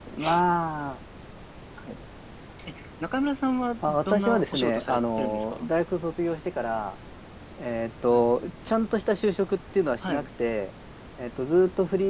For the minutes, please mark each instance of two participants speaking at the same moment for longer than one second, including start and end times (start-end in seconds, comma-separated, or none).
3.9-5.7